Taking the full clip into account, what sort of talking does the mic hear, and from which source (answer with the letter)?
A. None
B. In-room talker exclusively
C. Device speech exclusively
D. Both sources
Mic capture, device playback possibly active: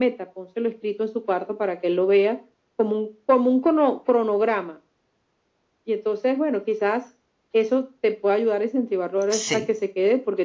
D